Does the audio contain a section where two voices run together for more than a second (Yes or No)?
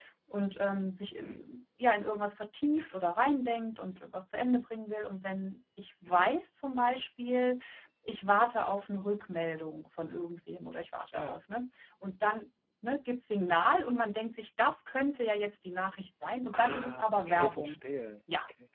Yes